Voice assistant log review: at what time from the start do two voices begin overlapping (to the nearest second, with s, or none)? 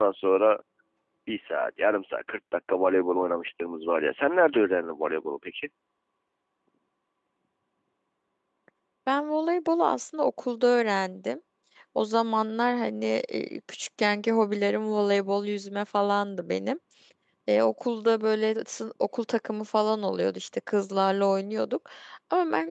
none